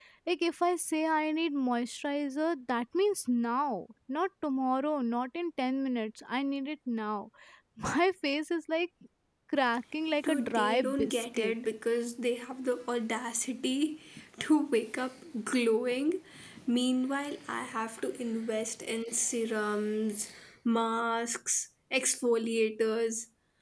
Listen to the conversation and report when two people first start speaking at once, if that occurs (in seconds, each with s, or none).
10.2 s